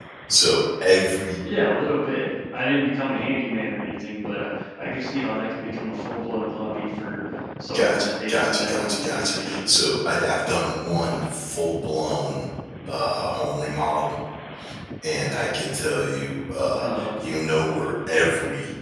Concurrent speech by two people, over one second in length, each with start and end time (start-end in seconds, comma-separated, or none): 7.7-9.6